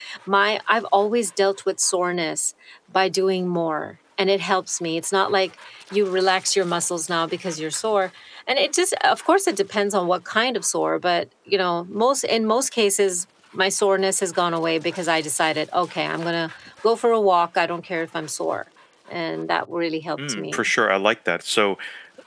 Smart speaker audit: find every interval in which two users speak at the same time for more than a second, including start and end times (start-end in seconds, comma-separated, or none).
none